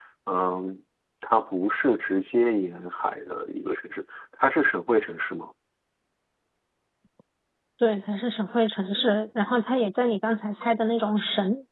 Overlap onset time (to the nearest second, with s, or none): none